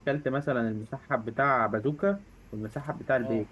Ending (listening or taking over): listening